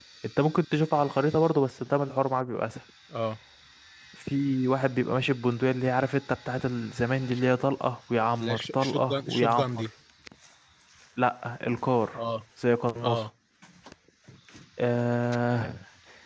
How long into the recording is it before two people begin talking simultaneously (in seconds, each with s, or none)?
8.4 s